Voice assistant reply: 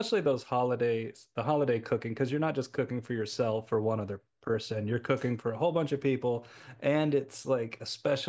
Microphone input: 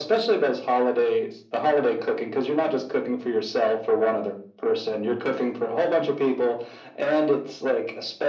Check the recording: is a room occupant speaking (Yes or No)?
No